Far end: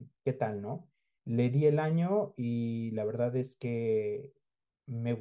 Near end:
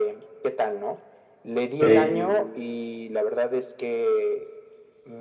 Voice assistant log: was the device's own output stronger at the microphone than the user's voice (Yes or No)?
No